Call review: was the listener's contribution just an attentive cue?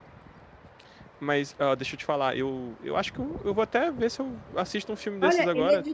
No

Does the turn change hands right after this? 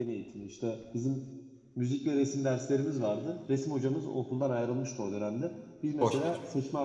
No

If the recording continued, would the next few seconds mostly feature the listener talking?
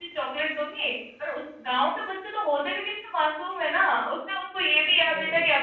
No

